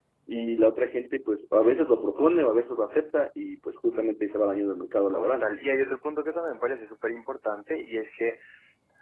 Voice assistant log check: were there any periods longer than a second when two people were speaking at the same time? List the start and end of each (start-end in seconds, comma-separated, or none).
none